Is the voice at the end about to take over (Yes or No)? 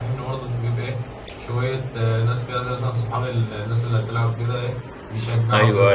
Yes